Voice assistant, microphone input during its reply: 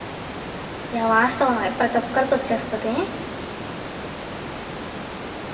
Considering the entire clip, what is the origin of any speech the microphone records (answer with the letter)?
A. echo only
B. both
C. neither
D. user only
D